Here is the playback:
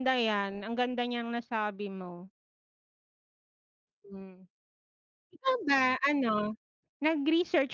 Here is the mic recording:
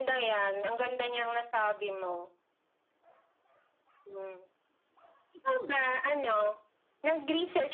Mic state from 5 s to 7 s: echo only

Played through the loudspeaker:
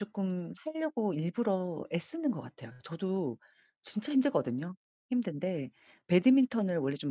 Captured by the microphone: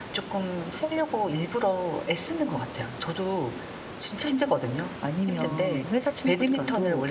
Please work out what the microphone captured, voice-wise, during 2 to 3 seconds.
echo only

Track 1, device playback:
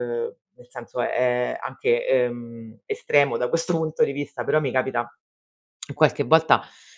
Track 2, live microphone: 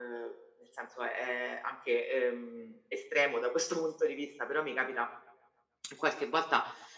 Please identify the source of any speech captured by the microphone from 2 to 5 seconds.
echo only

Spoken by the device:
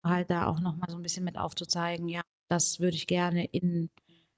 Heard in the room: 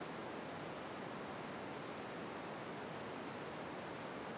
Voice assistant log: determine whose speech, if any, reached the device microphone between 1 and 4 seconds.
neither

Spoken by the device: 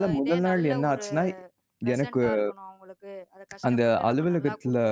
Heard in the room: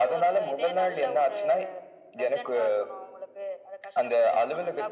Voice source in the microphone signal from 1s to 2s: echo only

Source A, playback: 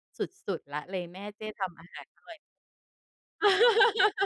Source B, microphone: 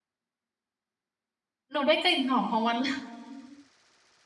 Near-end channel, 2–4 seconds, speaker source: user only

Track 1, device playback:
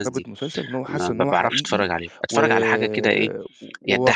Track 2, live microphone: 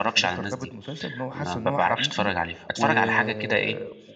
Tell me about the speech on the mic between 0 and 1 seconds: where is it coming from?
echo only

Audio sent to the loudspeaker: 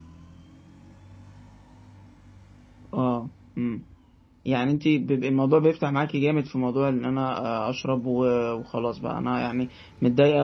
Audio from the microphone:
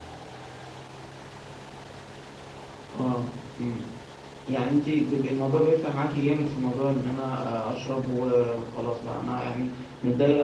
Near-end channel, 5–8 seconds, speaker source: echo only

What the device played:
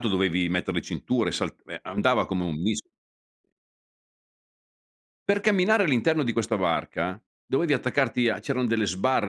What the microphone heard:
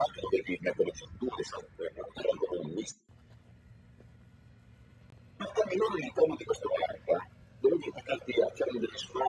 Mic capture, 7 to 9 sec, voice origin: echo only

